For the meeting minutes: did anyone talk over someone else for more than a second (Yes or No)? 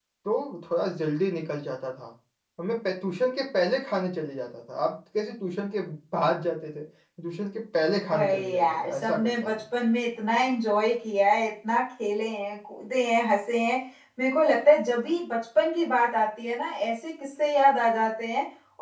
Yes